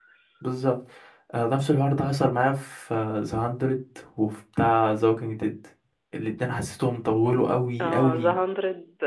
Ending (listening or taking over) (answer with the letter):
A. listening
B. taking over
B